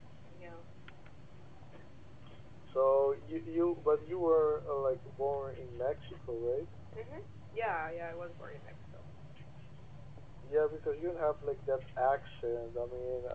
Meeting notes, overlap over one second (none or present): none